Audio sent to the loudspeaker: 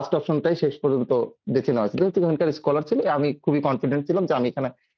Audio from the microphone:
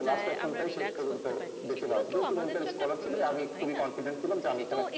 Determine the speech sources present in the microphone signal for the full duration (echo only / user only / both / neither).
both